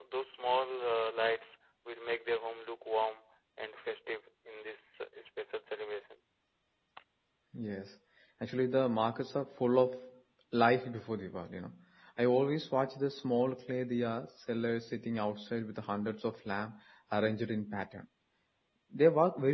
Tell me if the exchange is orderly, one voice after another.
Yes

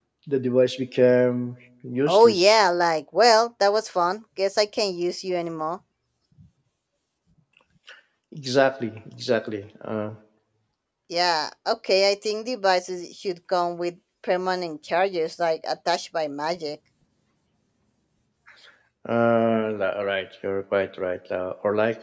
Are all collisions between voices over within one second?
Yes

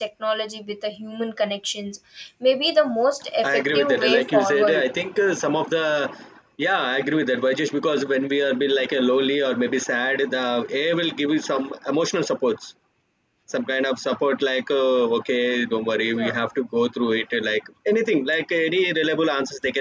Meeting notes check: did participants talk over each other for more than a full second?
Yes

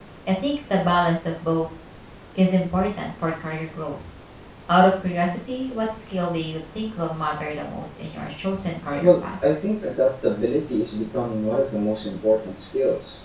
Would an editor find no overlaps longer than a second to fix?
Yes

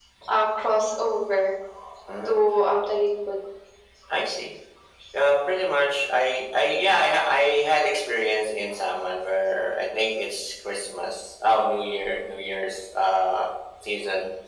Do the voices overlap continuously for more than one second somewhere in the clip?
No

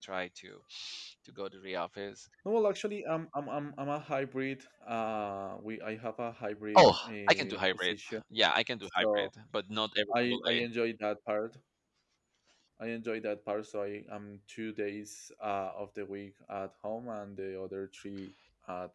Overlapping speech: Yes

